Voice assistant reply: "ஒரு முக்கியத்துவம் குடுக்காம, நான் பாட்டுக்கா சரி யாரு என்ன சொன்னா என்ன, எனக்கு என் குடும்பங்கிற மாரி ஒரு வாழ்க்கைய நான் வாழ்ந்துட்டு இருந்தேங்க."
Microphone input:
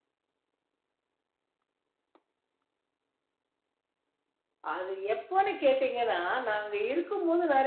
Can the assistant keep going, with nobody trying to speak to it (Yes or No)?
No